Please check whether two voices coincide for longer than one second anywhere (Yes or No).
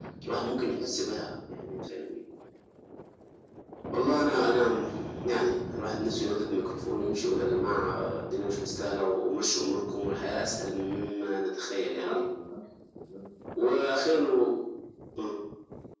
No